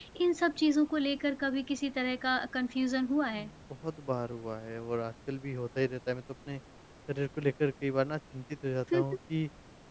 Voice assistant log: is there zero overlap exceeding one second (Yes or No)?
Yes